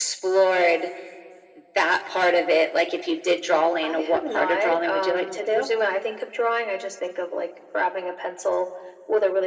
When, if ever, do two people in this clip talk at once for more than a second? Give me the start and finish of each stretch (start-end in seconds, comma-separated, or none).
3.8-5.6